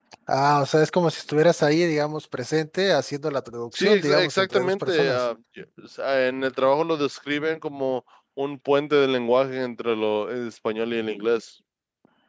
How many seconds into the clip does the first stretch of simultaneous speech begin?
3.7 s

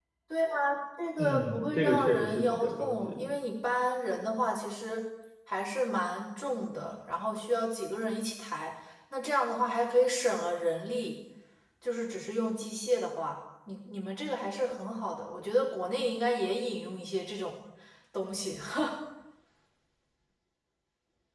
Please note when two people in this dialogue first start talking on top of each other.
1.2 s

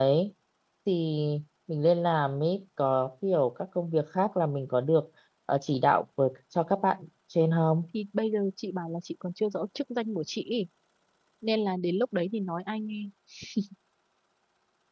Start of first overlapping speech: none

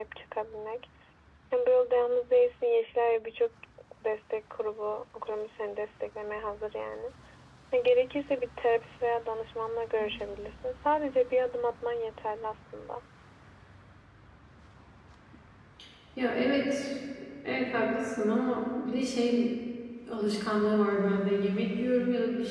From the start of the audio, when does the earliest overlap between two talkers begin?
none

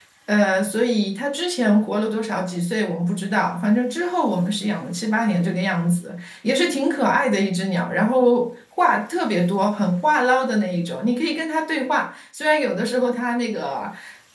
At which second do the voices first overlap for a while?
none

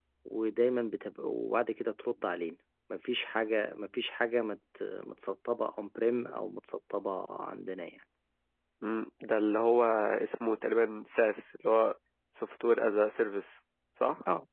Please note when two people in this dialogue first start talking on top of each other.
none

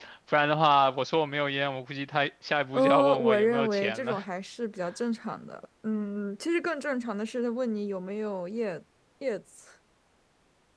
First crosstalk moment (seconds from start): 2.7 s

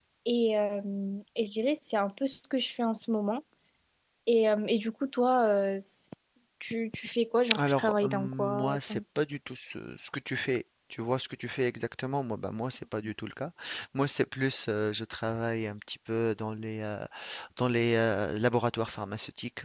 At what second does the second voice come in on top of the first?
7.5 s

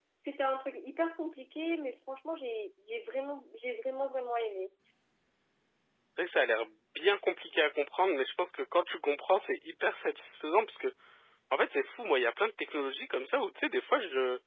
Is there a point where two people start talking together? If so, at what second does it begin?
none

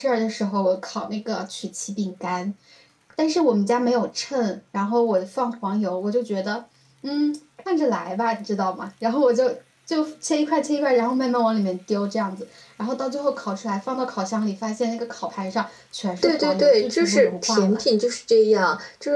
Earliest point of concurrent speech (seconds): 16.2 s

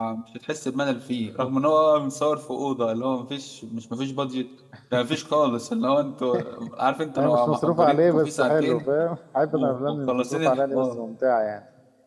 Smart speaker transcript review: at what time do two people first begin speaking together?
7.2 s

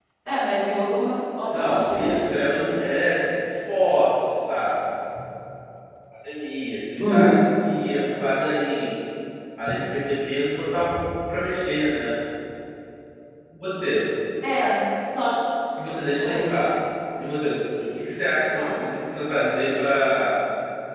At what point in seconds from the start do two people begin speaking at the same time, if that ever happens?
1.5 s

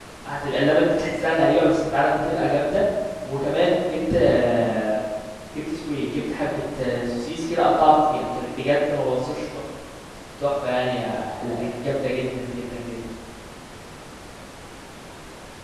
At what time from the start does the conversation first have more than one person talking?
none

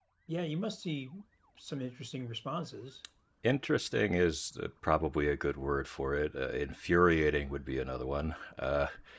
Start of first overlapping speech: none

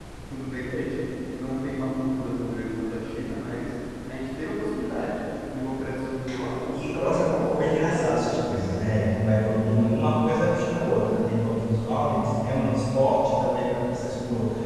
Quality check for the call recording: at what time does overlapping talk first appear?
6.7 s

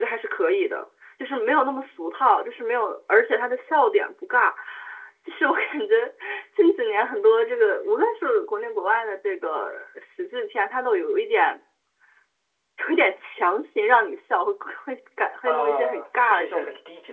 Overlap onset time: 15.5 s

